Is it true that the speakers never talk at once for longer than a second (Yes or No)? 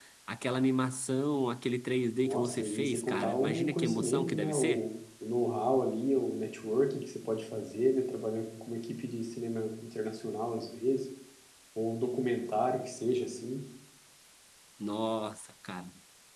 No